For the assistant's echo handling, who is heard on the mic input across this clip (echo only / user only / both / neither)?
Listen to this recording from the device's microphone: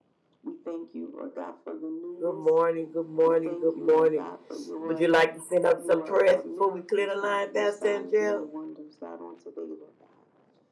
both